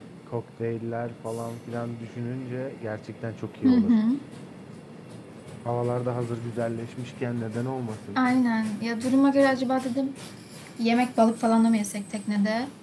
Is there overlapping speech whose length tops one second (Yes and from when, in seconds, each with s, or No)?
No